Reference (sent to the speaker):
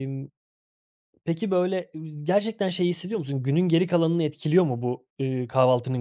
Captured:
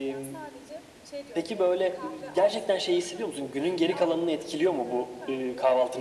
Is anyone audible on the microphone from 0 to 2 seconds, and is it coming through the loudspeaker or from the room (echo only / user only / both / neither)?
both